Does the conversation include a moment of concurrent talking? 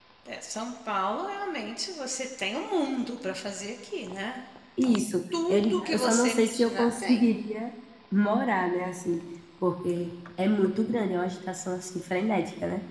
Yes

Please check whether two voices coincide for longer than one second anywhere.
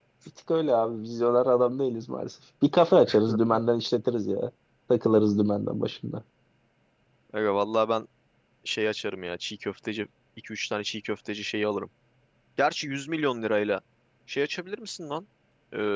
No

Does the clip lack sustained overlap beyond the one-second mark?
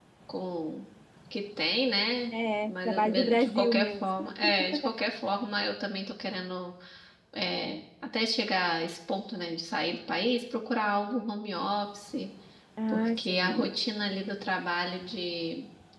No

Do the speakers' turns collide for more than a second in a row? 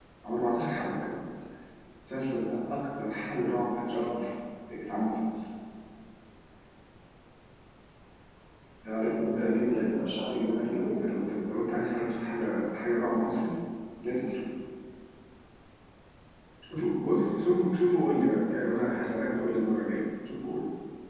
Yes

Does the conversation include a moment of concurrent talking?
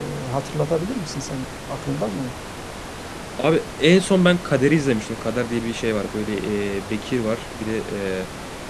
No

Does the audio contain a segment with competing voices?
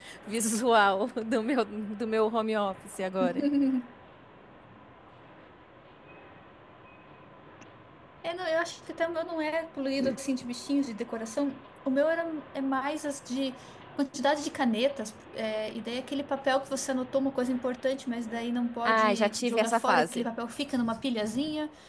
Yes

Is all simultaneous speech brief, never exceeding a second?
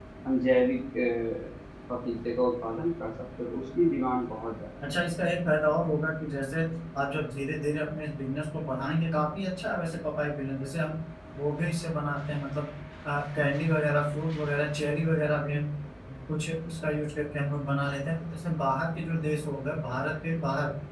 Yes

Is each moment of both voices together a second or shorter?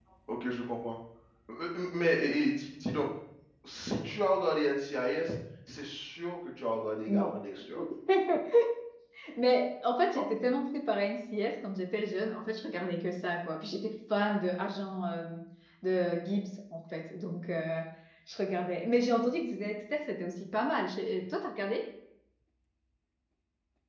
Yes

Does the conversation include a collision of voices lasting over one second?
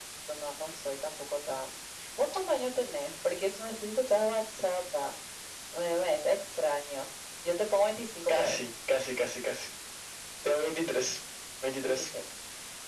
No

